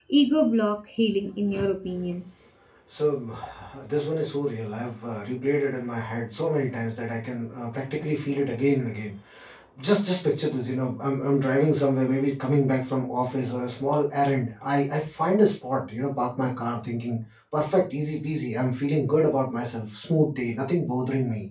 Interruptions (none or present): none